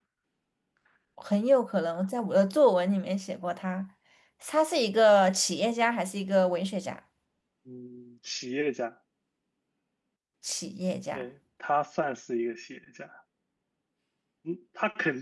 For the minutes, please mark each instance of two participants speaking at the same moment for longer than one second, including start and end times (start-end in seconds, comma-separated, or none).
none